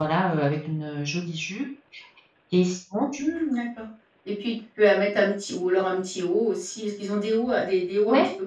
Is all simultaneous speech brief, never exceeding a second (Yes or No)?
Yes